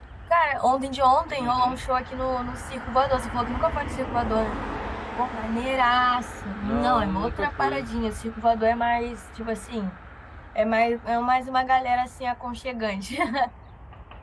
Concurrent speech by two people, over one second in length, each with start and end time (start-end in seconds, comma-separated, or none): 6.6-7.9